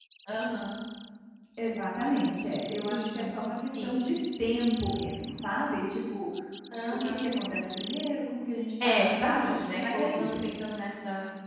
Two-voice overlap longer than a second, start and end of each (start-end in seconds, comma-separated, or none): 8.8-10.4